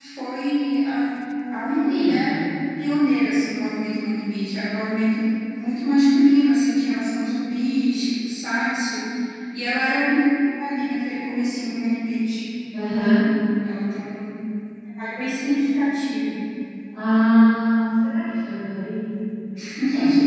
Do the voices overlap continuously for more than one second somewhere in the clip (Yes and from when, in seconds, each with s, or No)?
No